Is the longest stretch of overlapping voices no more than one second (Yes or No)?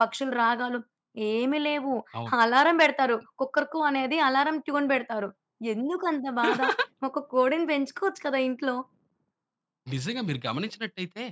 Yes